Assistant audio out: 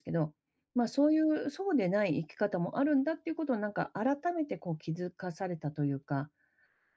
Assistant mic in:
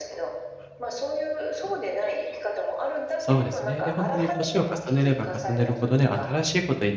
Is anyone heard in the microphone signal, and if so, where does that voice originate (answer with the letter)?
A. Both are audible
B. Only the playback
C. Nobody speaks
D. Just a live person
A